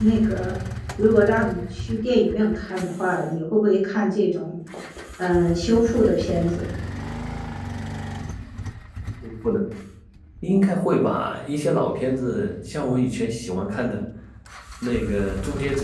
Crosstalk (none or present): none